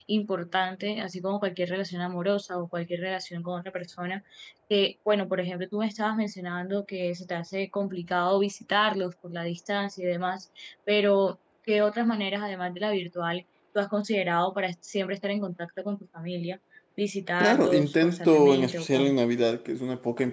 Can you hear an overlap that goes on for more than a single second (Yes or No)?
Yes